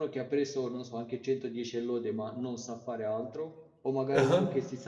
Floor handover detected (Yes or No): No